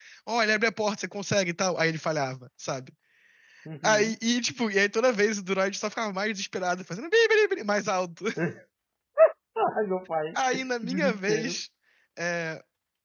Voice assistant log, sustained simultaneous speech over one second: present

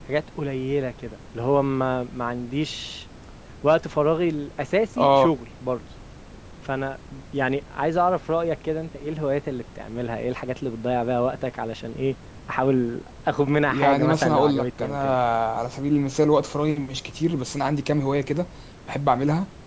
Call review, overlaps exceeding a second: present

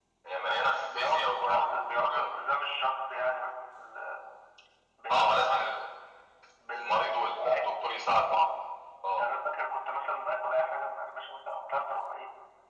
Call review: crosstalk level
present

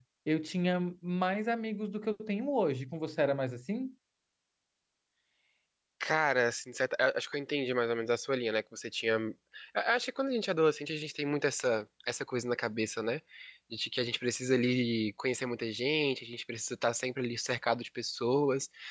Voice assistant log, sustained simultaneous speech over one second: none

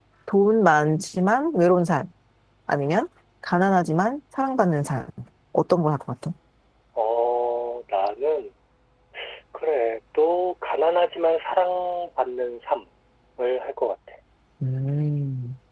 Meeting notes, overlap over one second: none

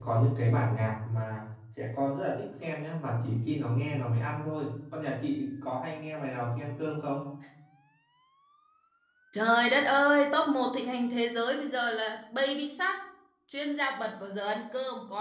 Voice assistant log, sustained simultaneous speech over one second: none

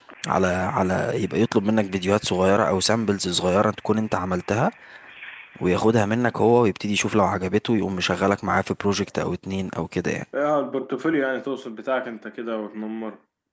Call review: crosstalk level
none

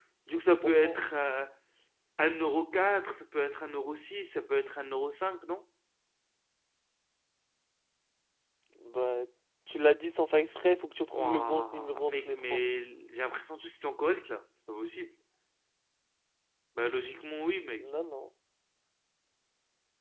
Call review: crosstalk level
present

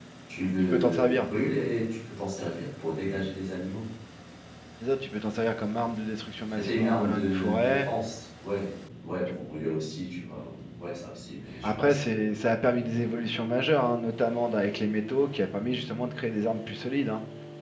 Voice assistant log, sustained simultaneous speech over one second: present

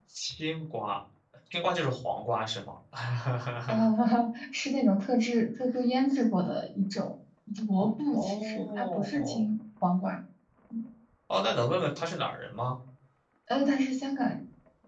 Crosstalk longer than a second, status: present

